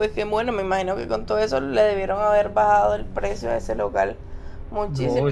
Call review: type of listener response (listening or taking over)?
taking over